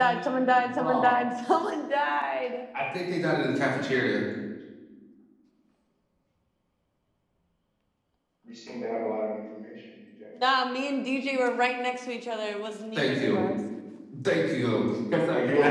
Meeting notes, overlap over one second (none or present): none